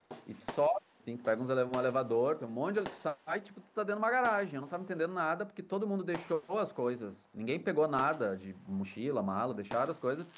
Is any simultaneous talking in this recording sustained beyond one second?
No

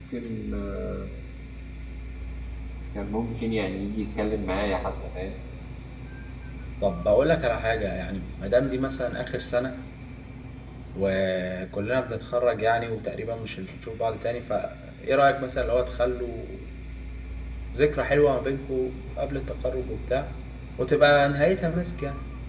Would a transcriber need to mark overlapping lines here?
No

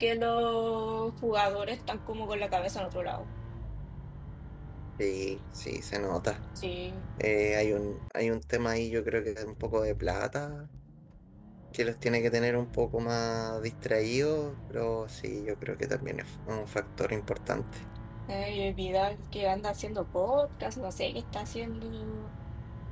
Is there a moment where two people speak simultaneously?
No

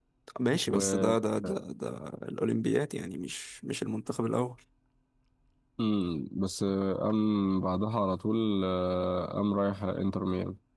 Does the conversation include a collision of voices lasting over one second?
No

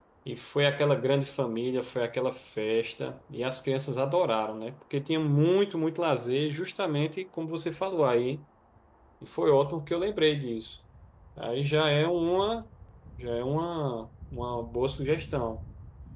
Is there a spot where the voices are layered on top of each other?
No

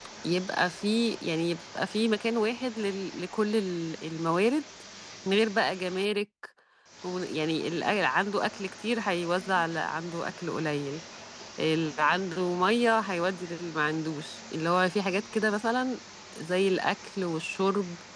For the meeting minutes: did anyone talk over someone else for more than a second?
No

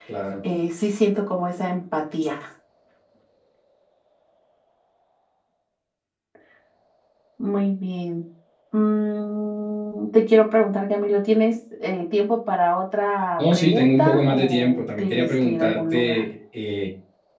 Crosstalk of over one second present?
Yes, from 13.4 s

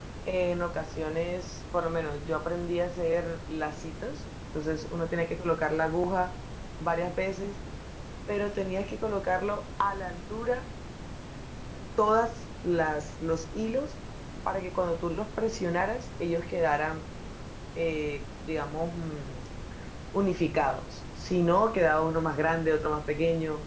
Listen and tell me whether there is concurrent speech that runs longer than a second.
No

